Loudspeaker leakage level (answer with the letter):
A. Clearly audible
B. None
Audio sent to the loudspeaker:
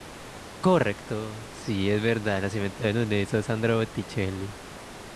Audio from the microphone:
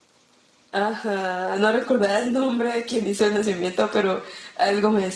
B